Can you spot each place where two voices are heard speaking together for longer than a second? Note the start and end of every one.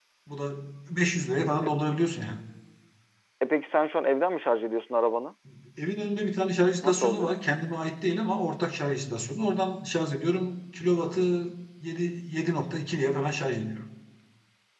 none

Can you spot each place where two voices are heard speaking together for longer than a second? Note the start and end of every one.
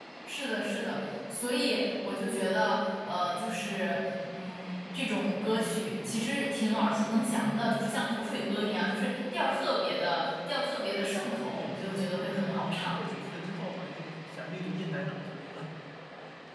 11.2-13.0

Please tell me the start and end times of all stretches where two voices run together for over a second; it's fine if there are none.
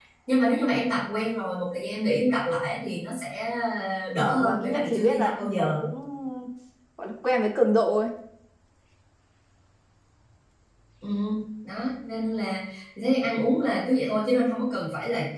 4.2-5.7

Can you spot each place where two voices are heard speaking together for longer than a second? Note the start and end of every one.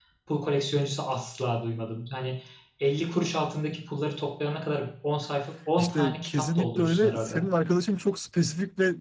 5.8-7.3

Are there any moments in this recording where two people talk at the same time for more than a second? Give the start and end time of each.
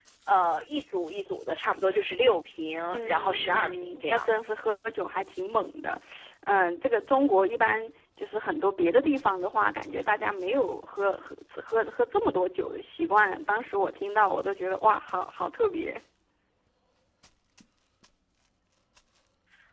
2.9-4.2

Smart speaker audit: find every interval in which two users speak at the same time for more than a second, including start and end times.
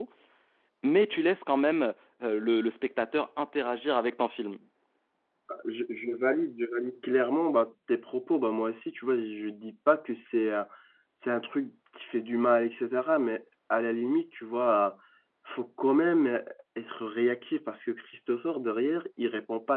none

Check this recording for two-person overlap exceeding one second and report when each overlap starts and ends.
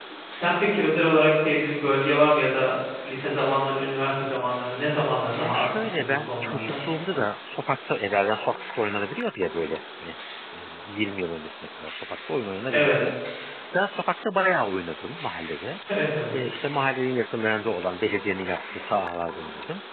5.4-6.7

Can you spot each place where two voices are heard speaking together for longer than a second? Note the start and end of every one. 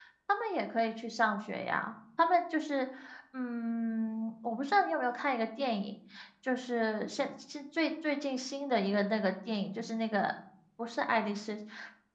none

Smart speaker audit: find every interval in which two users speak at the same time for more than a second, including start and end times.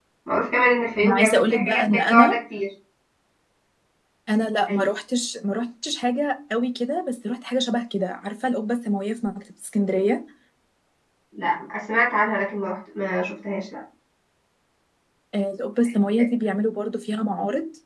1.0-2.4

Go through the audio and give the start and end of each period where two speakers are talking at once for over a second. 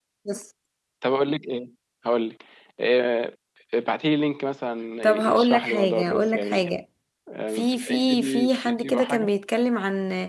5.0-6.7, 7.5-9.3

